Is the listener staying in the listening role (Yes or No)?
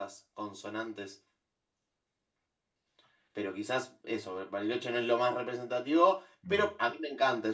Yes